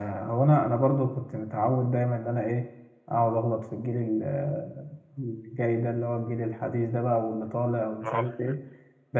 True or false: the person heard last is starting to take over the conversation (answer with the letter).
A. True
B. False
B